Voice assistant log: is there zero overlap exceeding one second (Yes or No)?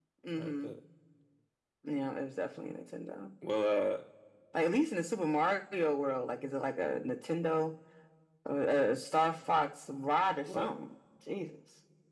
Yes